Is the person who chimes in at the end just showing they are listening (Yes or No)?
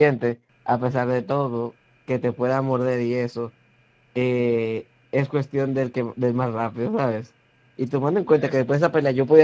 Yes